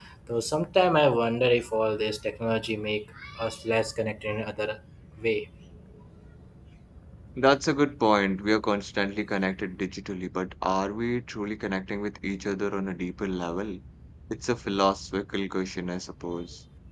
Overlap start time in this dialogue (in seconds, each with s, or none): none